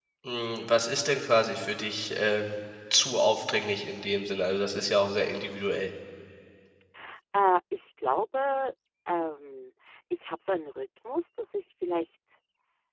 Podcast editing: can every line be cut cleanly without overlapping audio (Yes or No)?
Yes